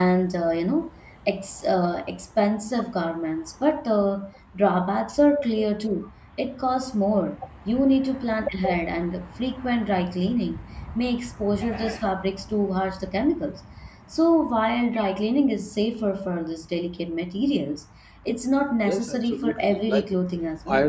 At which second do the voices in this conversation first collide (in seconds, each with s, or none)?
18.8 s